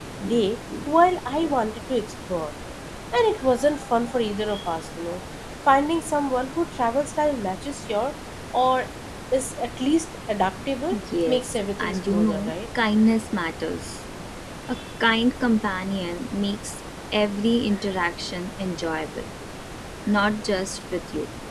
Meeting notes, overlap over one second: present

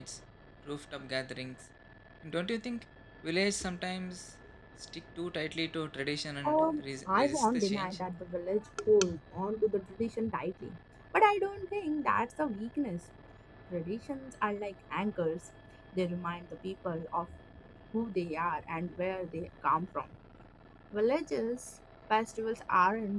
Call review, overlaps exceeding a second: present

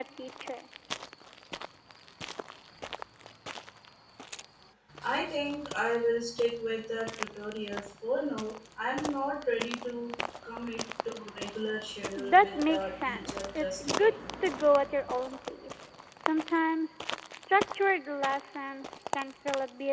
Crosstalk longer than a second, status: present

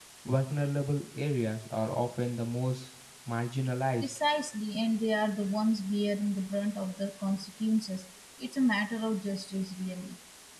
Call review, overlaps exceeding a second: none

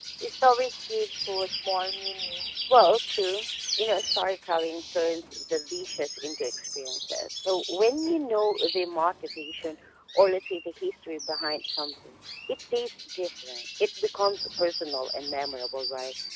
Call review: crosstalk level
none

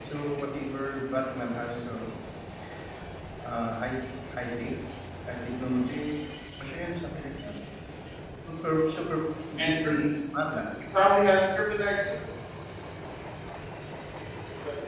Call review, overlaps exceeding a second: none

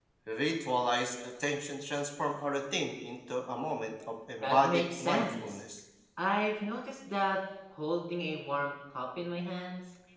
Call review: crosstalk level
present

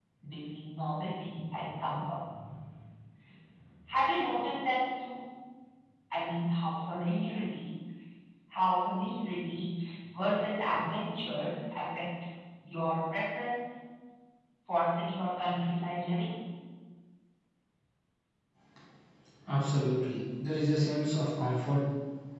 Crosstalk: none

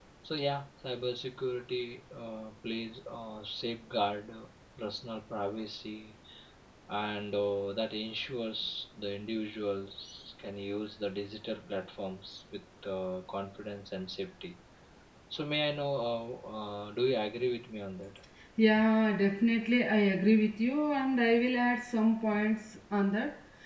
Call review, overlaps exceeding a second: none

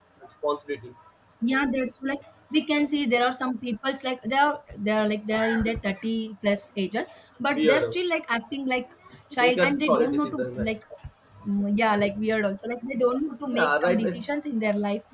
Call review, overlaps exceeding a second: present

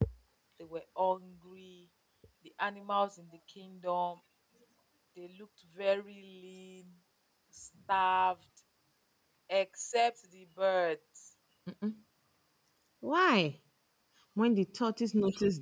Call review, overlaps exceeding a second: none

